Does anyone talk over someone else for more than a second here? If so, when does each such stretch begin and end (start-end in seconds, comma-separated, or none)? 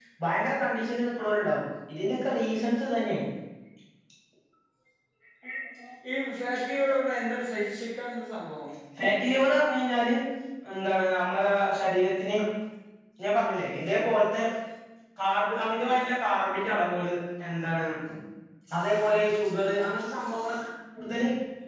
none